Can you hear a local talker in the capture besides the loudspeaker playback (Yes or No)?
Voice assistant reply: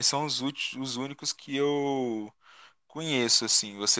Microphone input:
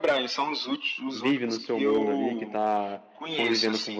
Yes